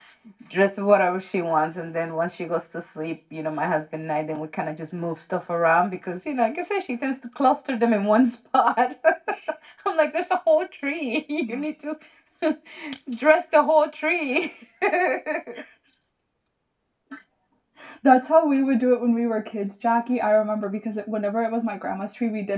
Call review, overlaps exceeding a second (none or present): none